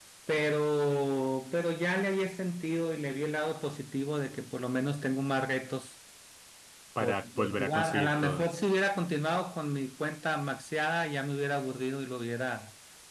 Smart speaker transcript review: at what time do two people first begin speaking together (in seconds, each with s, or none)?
7.0 s